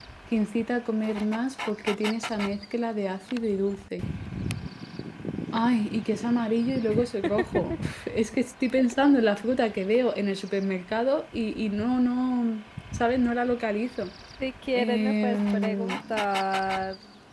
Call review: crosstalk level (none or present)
present